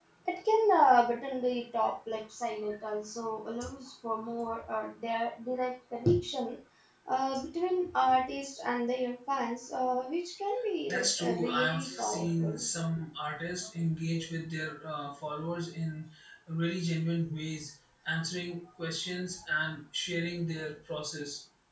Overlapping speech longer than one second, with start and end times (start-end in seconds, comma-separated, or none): 10.9-12.7